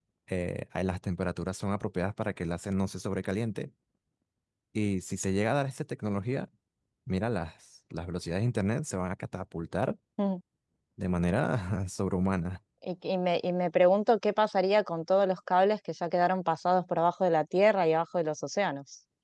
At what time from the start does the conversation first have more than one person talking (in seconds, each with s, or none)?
none